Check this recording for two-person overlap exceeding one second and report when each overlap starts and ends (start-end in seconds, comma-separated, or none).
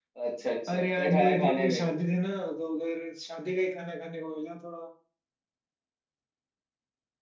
0.7-2.0